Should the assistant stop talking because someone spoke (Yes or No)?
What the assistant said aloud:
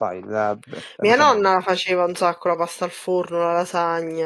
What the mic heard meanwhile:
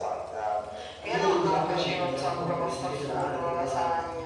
Yes